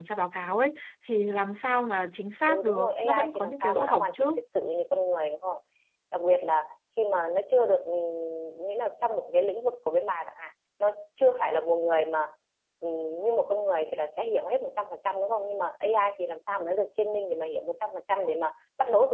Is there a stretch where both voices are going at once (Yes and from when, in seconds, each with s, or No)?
Yes, from 2.5 s